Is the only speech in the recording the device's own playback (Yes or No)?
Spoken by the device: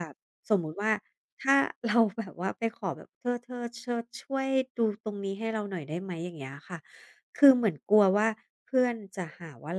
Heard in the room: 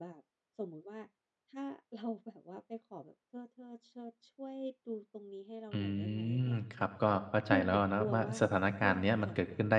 No